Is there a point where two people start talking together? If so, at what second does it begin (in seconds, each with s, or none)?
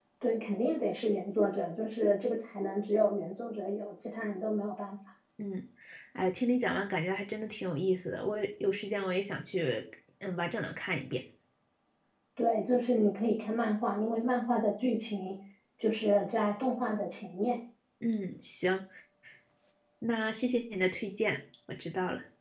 none